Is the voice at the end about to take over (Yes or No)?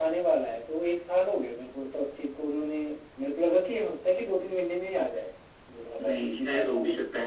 Yes